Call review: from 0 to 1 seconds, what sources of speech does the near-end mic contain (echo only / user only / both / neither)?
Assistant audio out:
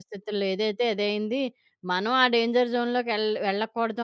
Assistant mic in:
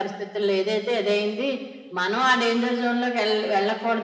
echo only